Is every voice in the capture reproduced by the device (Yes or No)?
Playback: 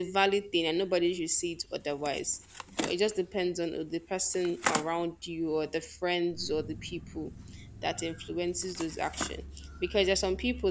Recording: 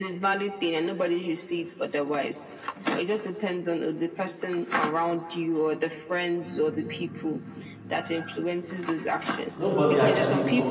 No